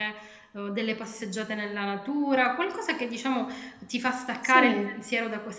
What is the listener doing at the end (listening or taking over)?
listening